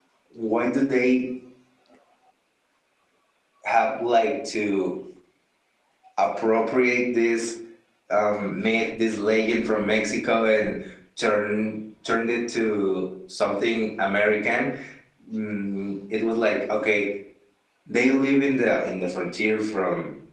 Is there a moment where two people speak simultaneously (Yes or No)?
No